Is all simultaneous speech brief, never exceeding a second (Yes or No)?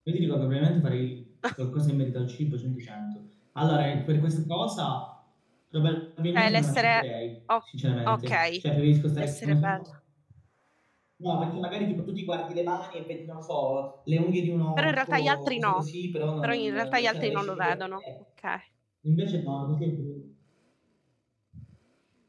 No